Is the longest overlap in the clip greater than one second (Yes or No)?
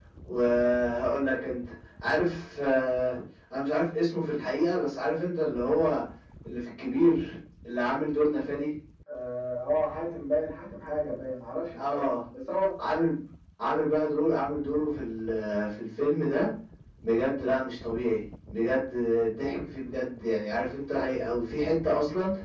No